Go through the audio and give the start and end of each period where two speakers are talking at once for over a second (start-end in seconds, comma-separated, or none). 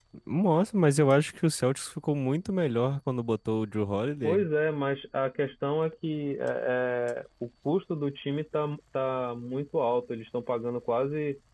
none